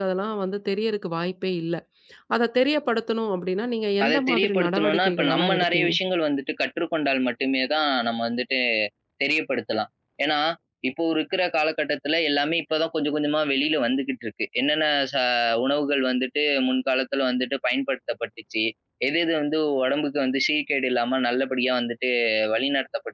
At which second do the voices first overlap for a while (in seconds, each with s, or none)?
4.0 s